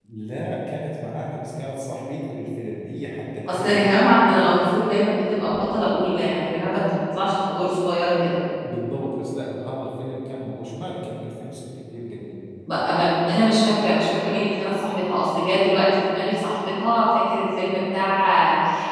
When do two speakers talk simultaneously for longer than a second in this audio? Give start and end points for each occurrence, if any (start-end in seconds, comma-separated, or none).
none